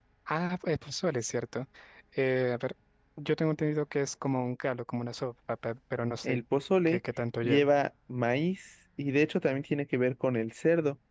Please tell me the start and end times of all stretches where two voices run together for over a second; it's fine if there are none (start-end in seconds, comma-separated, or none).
none